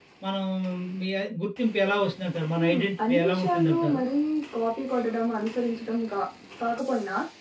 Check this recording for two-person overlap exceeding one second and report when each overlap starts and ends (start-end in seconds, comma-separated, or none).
2.6-4.0